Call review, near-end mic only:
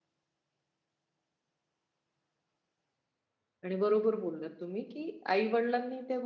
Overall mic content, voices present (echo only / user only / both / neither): user only